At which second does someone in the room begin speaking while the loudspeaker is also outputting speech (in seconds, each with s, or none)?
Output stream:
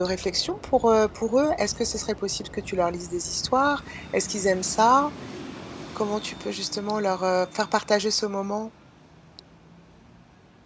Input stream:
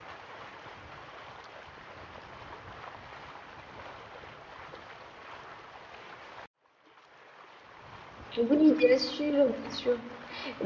8.3 s